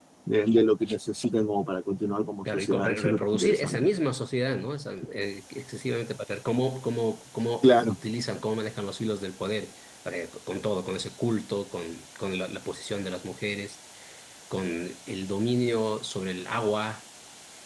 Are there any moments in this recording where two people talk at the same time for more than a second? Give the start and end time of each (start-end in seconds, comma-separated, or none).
2.5-3.9